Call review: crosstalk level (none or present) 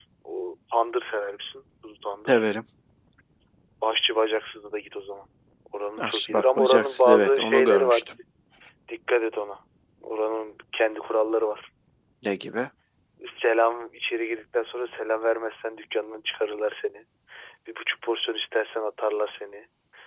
present